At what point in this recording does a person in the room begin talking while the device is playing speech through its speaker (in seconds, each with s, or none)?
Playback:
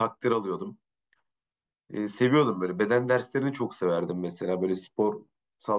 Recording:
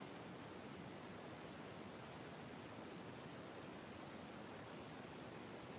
none